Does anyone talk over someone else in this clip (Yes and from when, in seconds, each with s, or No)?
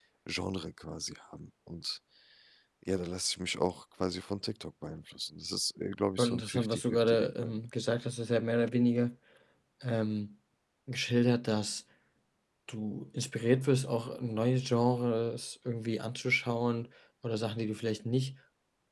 Yes, from 6.2 s